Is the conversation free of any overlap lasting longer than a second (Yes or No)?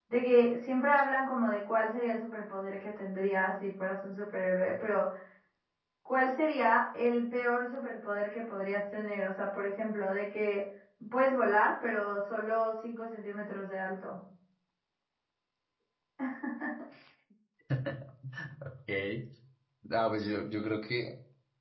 Yes